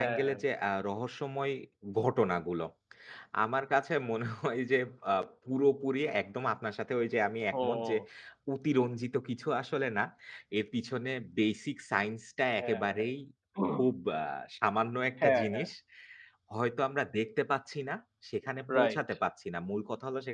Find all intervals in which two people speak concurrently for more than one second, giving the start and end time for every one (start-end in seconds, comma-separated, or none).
none